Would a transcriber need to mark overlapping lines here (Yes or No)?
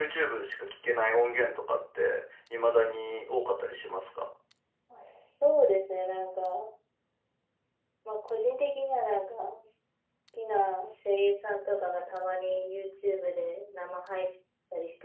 No